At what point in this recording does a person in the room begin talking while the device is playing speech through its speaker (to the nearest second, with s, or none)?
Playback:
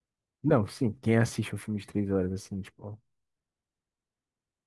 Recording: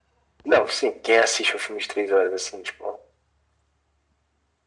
none